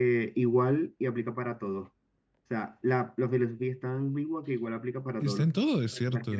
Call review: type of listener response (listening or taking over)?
taking over